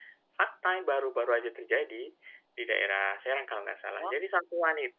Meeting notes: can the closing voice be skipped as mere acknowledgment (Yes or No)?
Yes